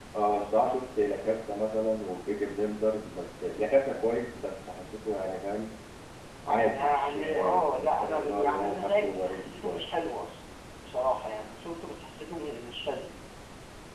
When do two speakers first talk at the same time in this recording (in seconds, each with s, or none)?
6.7 s